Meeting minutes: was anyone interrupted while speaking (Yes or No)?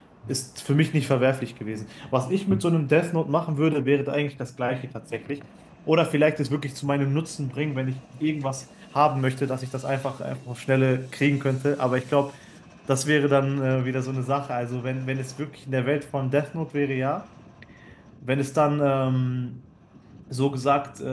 No